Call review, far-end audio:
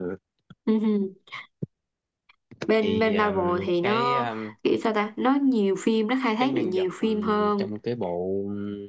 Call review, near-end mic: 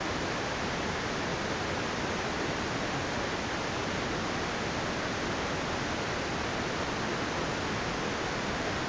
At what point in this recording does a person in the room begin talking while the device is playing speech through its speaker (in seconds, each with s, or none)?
none